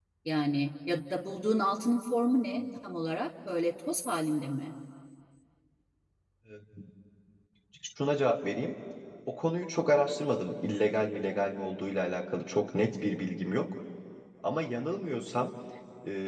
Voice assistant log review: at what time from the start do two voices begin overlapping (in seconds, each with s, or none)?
none